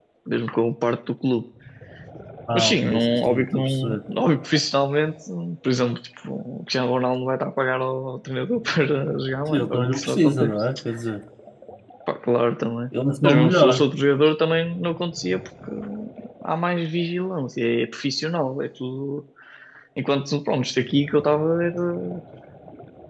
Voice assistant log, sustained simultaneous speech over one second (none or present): present